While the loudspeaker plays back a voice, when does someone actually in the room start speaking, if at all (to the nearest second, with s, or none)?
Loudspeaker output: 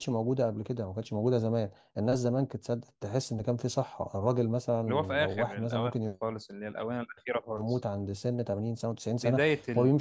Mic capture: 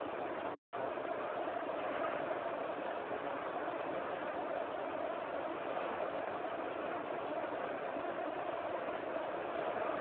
none